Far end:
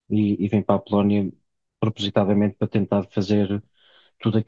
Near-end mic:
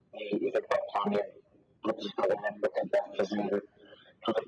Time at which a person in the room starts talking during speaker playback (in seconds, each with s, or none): none